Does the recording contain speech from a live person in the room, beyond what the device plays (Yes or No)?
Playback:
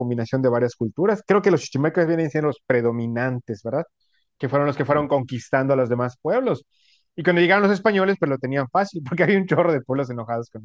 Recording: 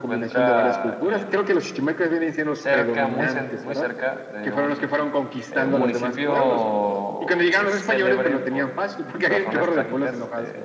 Yes